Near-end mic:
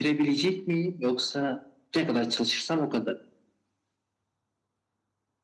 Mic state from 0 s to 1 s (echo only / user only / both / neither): echo only